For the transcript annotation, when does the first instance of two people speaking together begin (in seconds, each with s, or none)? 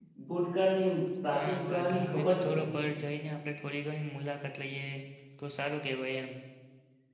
1.3 s